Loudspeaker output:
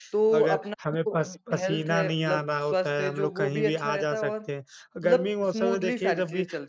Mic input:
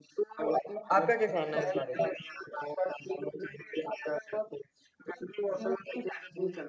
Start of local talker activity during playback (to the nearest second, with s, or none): 1 s